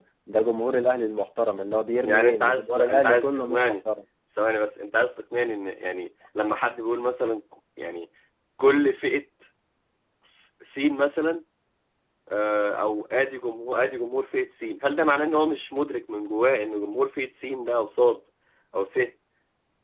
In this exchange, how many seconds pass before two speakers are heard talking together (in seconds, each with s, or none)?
2.0 s